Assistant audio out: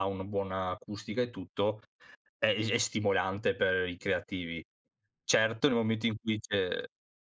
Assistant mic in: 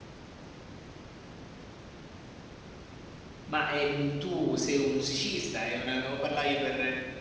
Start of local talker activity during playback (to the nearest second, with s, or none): 3 s